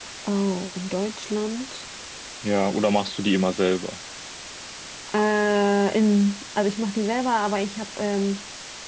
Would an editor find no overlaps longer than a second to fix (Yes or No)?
Yes